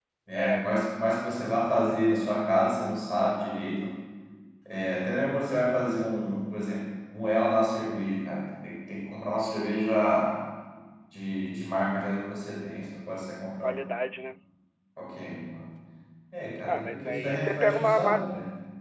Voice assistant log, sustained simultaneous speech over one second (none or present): present